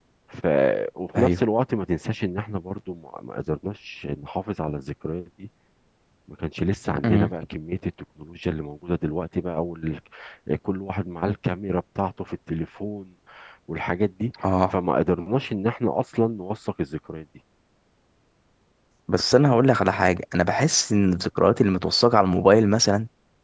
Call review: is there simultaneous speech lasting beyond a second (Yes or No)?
No